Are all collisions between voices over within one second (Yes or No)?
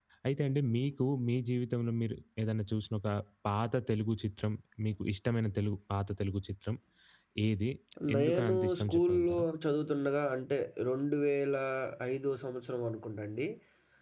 No